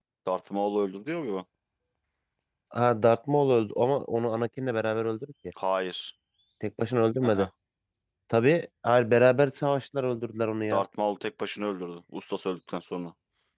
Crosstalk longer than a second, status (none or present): none